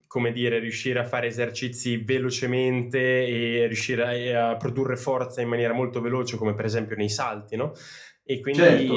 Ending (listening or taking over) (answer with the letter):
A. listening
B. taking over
B